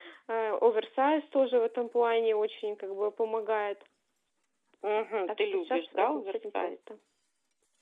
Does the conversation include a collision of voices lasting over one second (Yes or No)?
Yes